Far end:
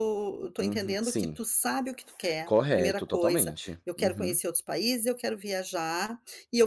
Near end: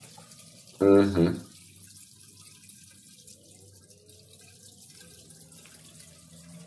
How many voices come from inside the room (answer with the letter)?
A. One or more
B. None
A